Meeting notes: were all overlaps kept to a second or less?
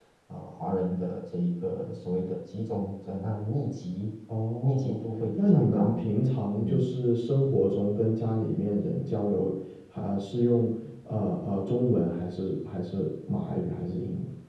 No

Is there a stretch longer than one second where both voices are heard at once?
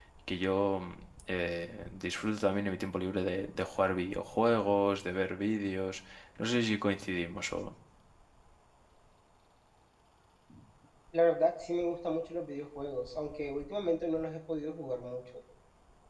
No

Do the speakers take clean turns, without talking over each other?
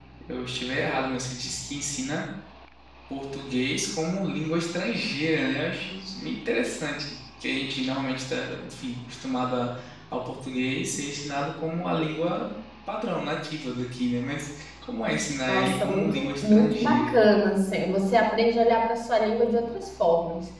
No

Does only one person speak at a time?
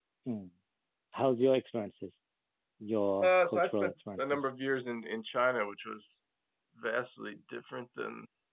No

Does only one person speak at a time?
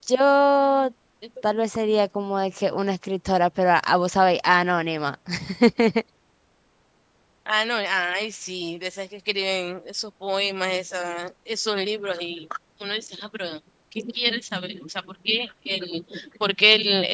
Yes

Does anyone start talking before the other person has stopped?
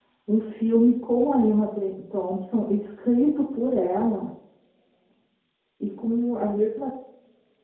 No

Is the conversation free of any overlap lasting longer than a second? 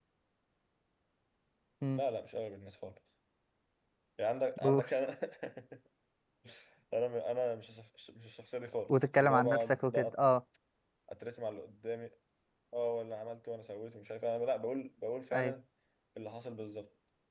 No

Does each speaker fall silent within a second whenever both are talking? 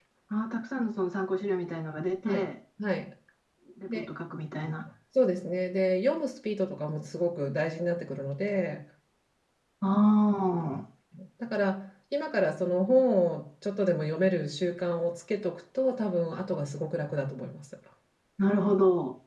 Yes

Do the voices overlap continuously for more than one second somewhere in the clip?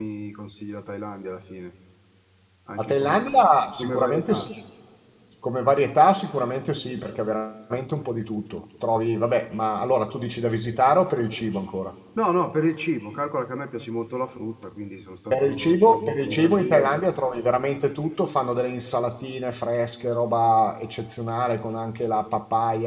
Yes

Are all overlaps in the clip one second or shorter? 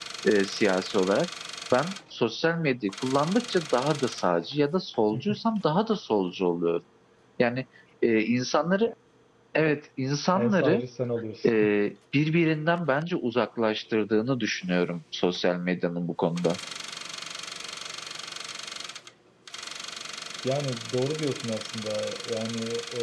Yes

